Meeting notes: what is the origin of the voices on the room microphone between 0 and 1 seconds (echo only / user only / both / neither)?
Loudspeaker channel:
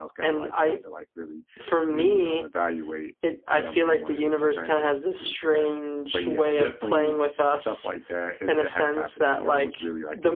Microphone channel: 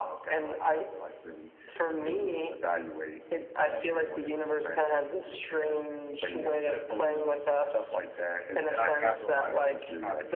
echo only